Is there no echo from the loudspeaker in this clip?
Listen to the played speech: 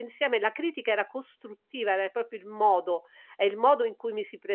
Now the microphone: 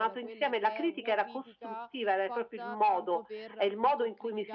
No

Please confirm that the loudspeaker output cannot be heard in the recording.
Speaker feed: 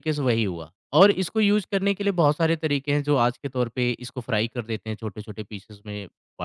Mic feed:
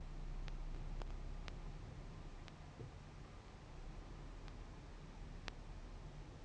Yes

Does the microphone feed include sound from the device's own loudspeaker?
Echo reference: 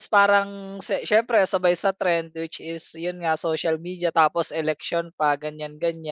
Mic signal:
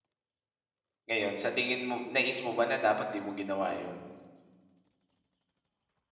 No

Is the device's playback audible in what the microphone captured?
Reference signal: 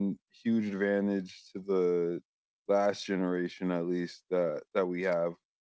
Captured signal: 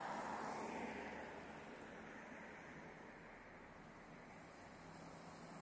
No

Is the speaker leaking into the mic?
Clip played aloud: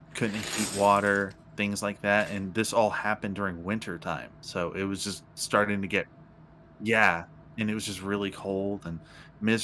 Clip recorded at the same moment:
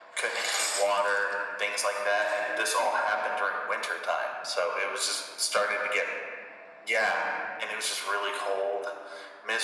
Yes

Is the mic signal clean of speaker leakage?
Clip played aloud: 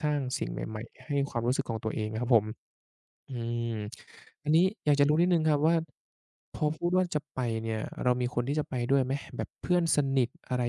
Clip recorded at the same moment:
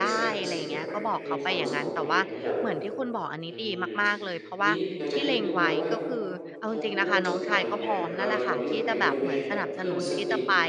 No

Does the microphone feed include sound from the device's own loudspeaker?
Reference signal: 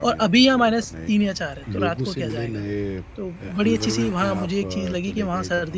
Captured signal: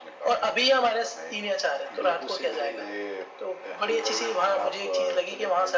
Yes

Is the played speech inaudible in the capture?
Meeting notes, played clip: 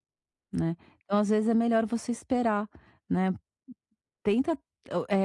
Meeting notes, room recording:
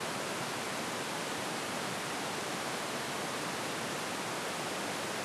Yes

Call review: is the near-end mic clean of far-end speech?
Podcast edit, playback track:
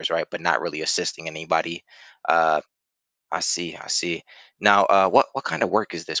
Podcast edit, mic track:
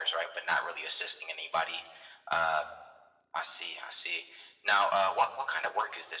No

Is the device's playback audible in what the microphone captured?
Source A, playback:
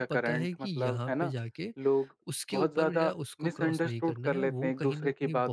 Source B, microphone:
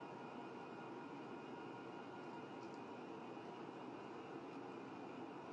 No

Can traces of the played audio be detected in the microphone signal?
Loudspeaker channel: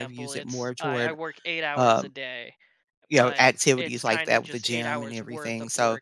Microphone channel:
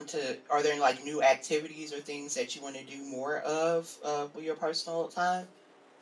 No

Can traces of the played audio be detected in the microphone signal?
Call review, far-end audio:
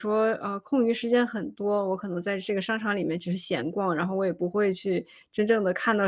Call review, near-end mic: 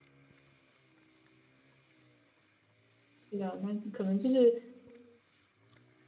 No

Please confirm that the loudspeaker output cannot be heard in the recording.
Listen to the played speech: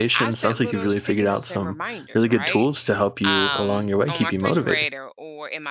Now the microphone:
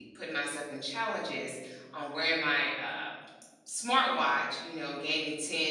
Yes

